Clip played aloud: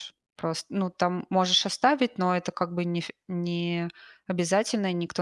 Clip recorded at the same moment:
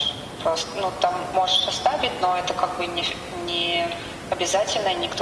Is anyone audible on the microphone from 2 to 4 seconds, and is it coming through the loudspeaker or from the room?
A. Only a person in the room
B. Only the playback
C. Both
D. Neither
B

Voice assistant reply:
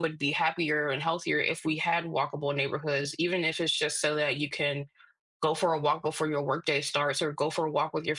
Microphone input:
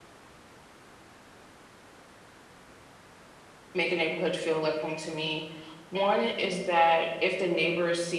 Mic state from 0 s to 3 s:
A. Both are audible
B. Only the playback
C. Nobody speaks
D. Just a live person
C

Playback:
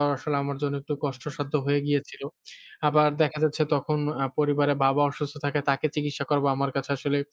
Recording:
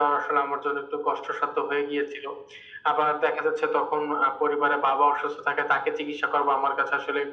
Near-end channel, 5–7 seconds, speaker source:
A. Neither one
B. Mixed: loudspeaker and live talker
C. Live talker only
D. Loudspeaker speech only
D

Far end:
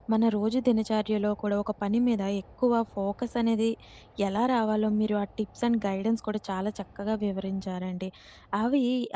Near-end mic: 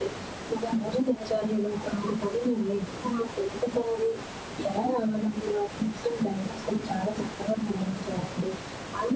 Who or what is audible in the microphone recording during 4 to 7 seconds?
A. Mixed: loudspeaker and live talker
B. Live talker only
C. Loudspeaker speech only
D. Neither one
C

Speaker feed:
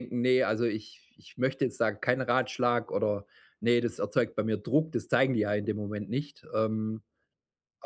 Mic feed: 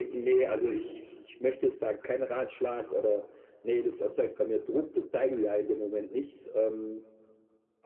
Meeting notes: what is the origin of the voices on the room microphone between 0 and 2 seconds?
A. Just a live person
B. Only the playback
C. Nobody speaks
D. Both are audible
B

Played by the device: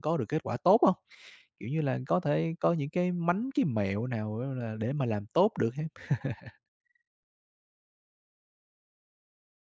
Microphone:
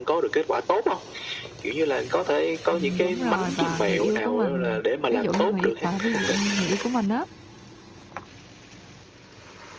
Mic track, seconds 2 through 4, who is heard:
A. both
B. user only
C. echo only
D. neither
A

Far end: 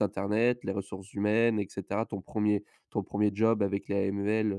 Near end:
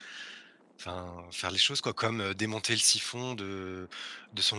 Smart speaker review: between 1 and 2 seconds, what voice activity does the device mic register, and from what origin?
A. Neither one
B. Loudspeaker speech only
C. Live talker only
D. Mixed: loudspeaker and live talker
C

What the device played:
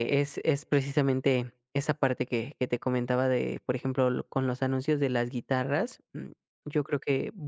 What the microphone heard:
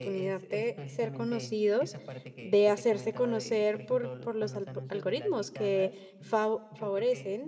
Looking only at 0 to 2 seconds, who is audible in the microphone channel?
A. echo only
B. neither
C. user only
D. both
D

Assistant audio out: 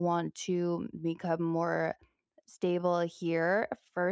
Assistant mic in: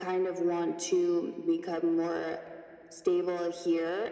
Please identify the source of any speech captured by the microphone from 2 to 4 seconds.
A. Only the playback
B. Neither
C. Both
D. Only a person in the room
A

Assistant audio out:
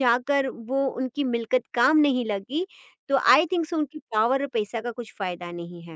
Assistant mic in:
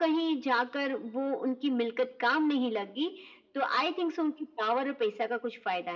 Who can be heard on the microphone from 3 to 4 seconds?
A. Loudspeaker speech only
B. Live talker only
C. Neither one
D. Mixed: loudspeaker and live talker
A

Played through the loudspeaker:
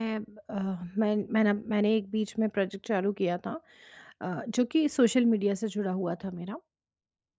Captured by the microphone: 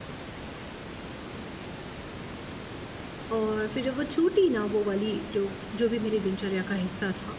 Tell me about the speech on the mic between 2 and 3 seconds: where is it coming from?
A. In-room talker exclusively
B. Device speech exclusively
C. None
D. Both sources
C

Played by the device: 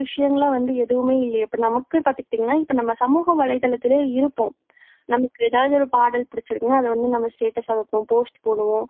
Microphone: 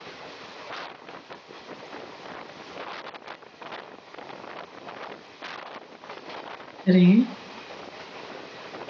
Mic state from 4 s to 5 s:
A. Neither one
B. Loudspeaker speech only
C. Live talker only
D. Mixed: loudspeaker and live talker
A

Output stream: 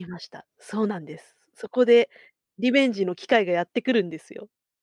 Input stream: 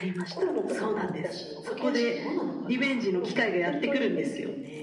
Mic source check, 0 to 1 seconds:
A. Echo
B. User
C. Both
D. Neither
C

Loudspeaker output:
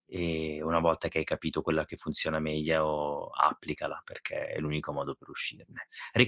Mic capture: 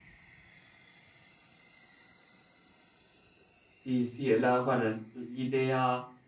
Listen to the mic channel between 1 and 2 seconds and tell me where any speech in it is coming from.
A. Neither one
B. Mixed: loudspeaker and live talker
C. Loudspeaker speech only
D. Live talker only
A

